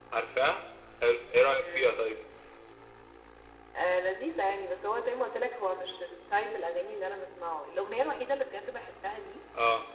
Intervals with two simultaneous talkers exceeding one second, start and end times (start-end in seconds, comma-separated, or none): none